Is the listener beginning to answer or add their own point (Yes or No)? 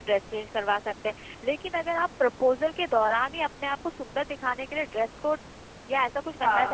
No